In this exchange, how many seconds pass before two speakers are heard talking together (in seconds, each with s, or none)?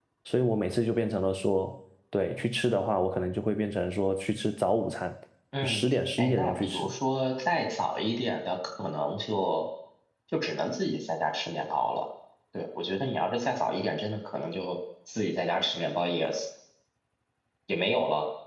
5.6 s